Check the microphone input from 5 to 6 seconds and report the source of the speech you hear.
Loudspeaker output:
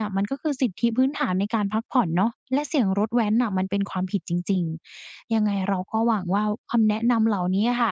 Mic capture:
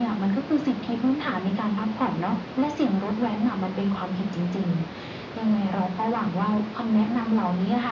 echo only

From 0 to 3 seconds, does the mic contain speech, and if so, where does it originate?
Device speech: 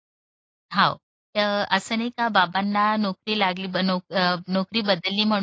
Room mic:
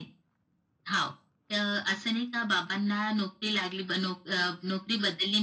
echo only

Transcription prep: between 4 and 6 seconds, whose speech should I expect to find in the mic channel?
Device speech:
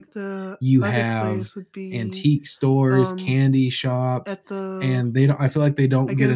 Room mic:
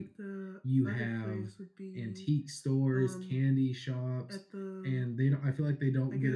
echo only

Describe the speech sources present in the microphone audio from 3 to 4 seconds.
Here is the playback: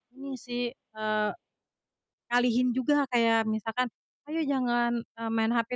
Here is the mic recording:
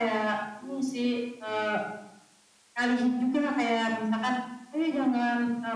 echo only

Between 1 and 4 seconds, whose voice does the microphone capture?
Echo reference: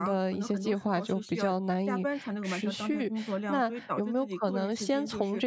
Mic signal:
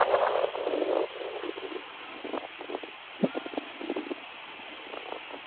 neither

